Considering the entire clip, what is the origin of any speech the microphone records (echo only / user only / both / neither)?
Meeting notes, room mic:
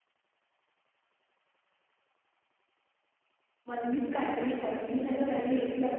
user only